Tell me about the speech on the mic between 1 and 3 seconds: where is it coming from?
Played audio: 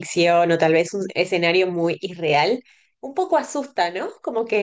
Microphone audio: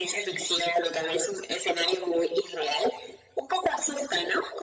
echo only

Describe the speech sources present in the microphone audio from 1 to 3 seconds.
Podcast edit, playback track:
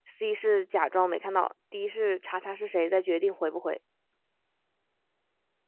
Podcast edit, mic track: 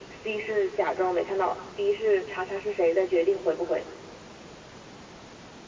echo only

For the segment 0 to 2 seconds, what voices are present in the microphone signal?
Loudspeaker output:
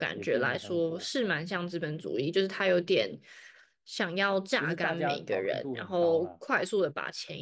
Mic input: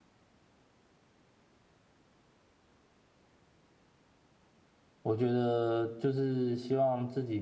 neither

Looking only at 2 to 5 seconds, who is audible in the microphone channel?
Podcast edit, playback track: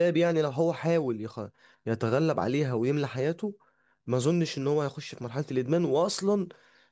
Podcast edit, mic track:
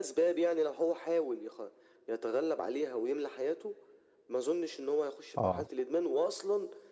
echo only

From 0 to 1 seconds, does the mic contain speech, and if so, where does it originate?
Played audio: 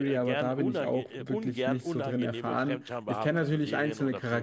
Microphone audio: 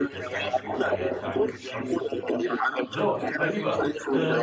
both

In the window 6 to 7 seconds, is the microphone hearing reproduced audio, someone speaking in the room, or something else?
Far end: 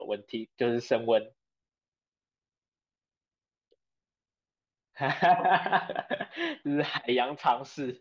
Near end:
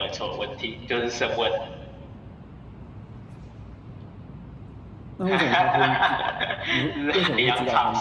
both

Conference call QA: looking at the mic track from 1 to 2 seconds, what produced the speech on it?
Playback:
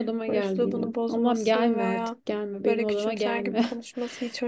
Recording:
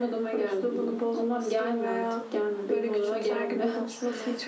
echo only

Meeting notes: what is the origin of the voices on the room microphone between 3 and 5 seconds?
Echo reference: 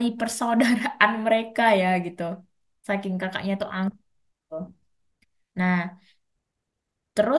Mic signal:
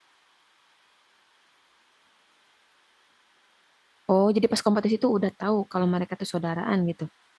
user only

